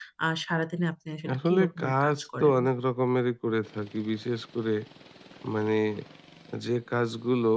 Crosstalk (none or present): present